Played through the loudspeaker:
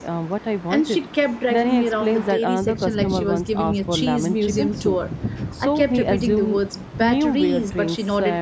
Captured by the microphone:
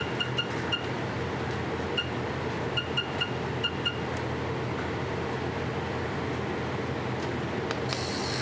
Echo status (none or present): none